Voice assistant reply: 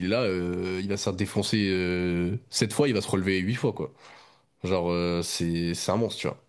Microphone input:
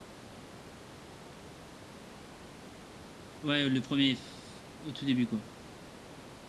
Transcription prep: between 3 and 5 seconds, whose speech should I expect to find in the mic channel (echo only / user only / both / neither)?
user only